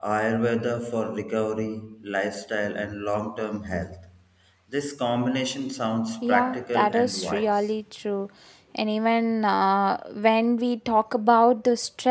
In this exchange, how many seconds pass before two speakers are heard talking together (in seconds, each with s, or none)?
6.2 s